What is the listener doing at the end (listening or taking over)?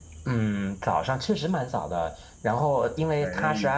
listening